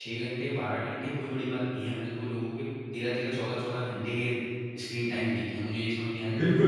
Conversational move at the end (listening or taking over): taking over